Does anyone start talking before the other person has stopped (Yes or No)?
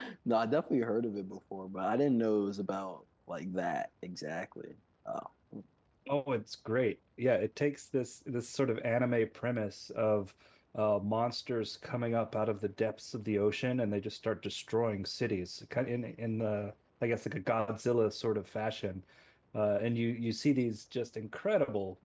No